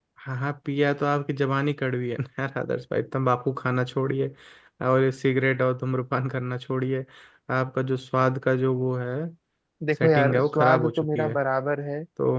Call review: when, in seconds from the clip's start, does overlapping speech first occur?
10 s

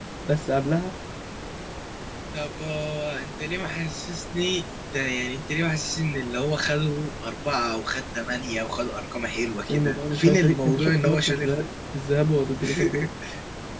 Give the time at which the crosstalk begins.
10 s

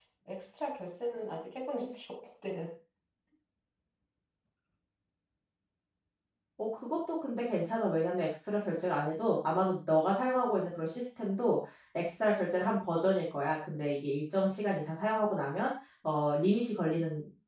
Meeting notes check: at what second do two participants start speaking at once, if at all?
none

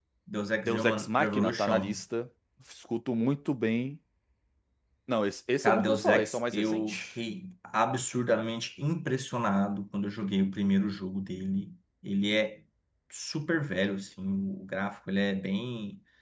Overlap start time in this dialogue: 1 s

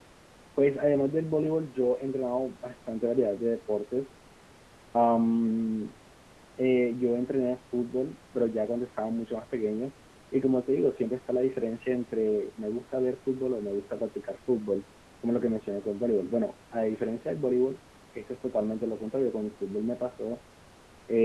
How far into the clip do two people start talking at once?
none

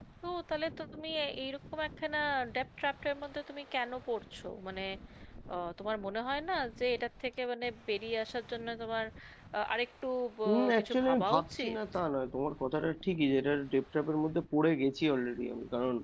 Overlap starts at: 10 s

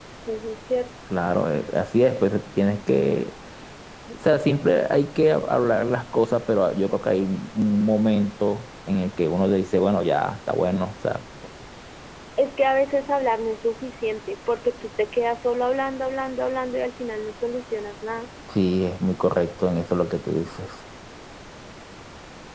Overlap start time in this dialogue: none

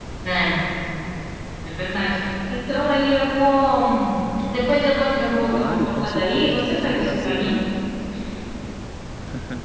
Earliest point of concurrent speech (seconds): 5 s

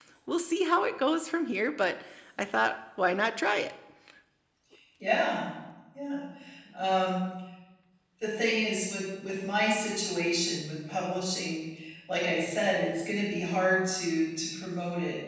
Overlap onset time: none

